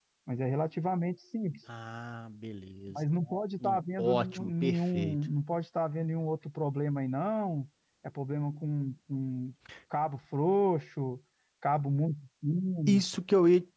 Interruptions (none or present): present